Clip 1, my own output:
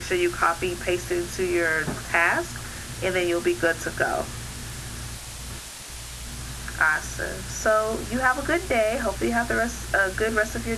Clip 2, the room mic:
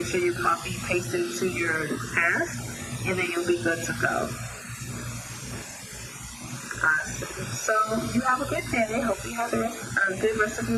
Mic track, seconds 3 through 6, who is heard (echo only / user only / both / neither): echo only